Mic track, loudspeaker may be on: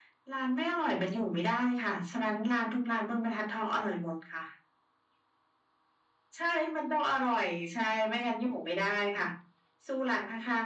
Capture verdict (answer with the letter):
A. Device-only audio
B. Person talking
A